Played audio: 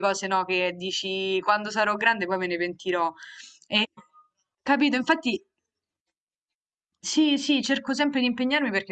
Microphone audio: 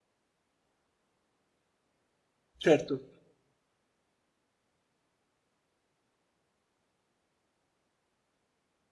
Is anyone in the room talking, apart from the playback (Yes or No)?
Yes